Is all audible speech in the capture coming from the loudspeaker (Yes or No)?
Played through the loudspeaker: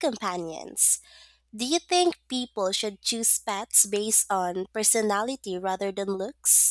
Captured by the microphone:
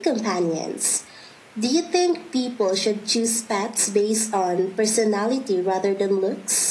Yes